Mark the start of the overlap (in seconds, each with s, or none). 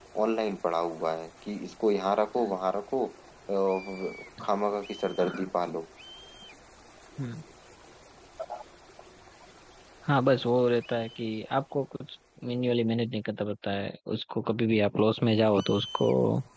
none